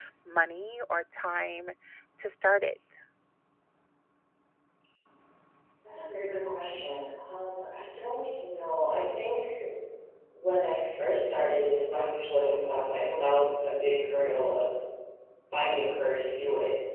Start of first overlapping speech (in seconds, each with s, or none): none